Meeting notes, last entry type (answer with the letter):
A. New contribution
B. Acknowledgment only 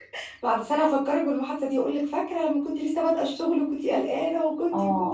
A